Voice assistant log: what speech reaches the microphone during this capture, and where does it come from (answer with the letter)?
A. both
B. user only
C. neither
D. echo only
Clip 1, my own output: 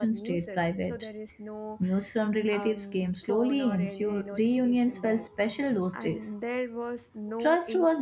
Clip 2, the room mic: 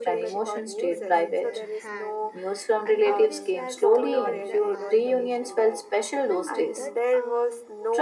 A